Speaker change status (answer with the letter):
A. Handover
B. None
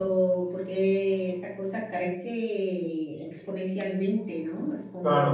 A